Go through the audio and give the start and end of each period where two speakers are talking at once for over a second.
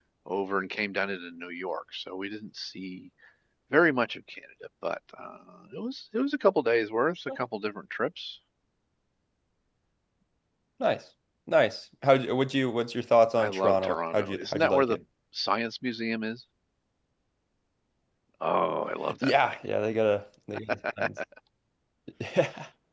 13.4-15.0

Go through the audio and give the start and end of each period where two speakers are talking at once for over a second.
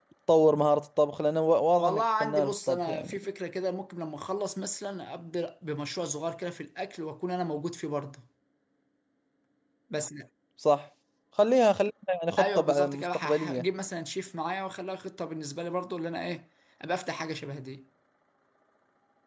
1.8-3.2, 12.4-13.6

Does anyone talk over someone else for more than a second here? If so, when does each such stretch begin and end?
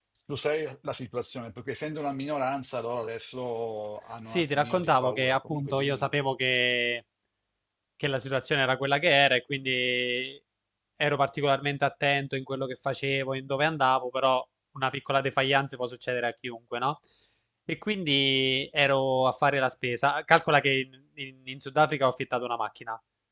4.3-6.1

